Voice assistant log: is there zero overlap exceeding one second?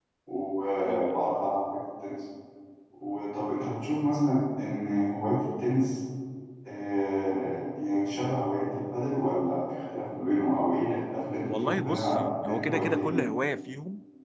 No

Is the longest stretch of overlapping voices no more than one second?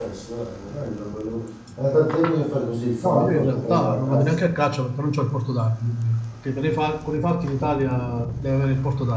No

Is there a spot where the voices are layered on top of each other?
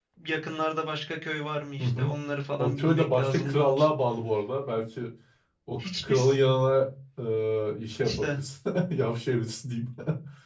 Yes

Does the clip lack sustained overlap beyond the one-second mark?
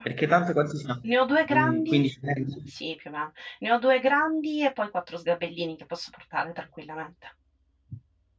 Yes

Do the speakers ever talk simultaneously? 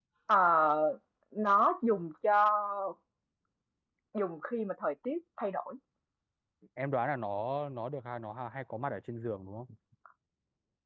No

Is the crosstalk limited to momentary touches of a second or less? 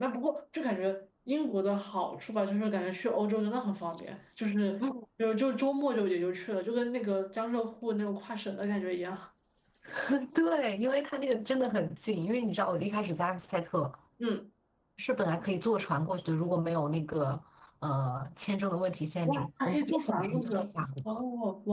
No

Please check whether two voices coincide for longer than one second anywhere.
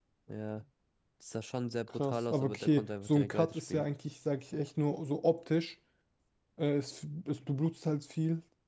Yes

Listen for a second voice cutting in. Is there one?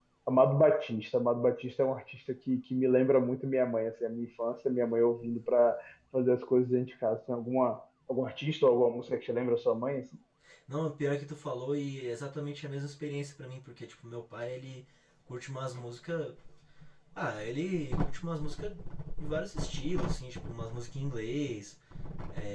No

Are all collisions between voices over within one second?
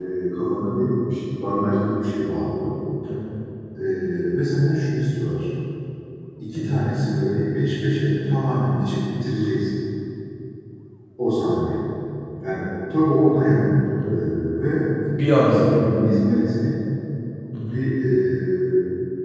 Yes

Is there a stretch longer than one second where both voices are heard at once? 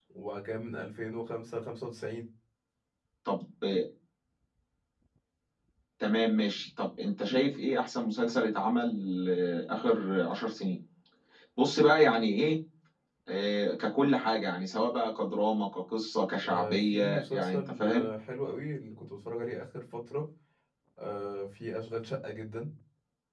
Yes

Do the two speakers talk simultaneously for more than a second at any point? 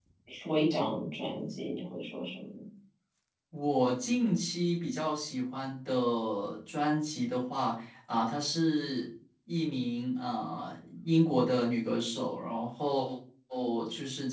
No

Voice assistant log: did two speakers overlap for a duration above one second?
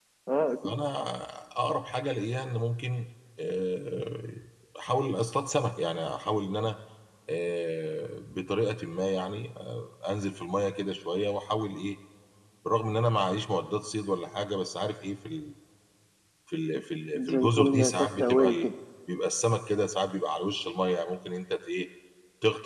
Yes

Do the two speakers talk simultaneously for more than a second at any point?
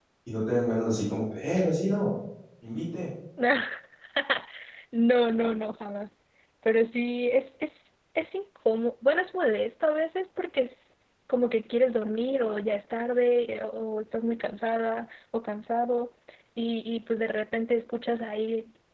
No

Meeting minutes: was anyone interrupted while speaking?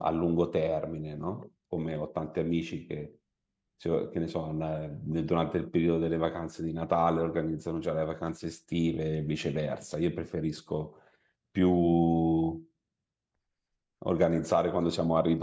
No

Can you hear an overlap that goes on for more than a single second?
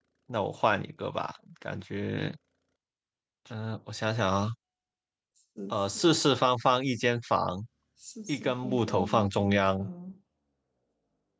Yes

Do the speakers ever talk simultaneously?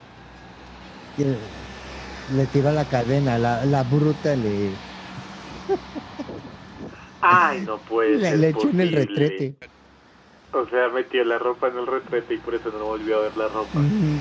Yes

